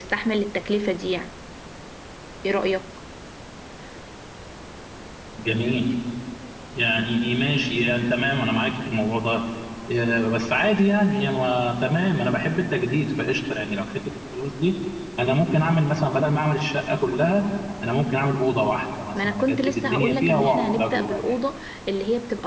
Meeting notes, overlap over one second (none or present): present